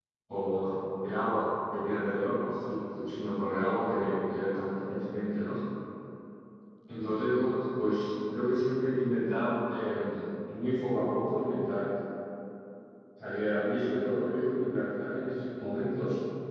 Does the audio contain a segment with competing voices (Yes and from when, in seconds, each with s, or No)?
No